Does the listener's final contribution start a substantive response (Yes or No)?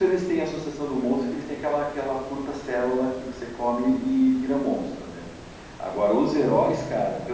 No